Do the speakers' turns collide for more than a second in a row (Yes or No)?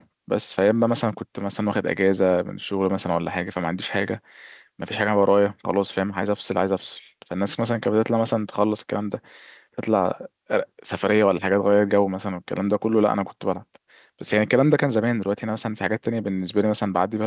No